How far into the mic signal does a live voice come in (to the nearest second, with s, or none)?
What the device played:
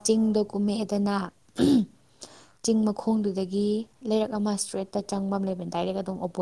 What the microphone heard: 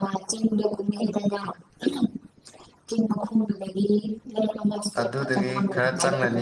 5 s